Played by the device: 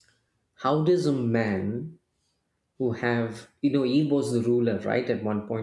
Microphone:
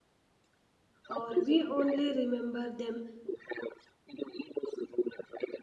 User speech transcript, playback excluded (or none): or we only remember them